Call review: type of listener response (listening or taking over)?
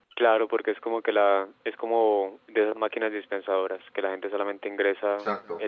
listening